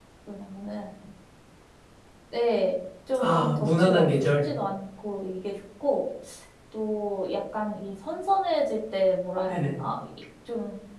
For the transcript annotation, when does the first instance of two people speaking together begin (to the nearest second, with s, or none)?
3 s